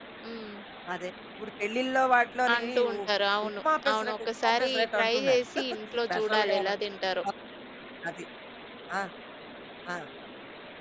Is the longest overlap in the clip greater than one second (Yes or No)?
Yes